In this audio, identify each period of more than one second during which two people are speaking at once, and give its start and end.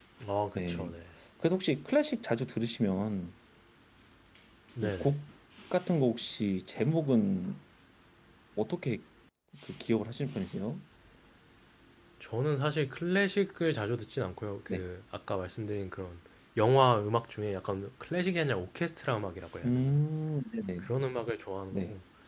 none

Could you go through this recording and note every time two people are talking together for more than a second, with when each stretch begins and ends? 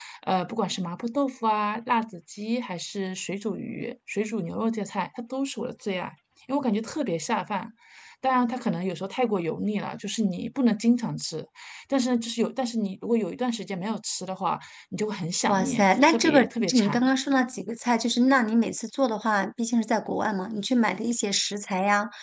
15.5-17.0

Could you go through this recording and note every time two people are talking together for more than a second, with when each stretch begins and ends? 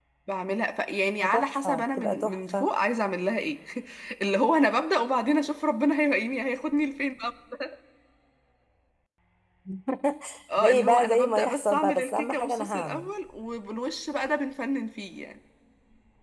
1.2-2.7, 10.6-13.1

